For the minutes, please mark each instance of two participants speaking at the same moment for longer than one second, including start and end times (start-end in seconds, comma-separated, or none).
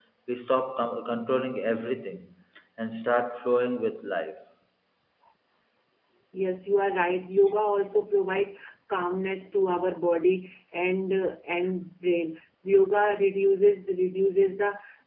none